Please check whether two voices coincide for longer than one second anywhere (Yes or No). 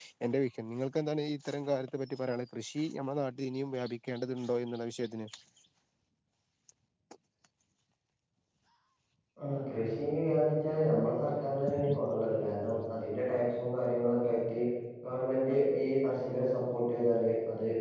No